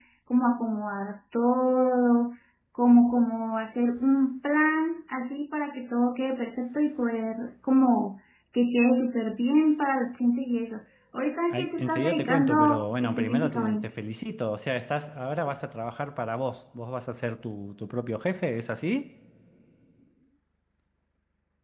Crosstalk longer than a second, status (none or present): present